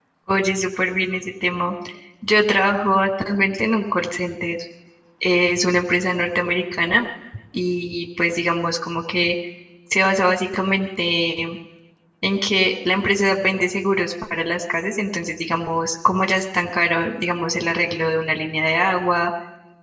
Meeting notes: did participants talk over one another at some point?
No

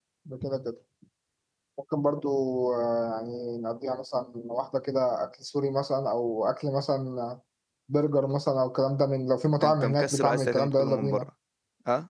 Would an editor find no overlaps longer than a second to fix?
No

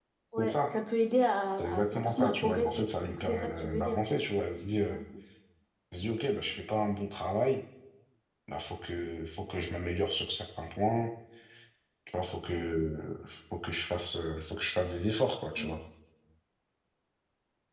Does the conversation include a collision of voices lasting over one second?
Yes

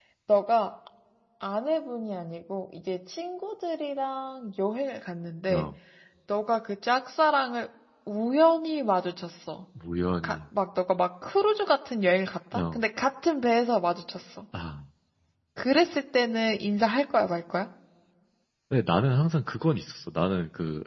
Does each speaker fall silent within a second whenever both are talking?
Yes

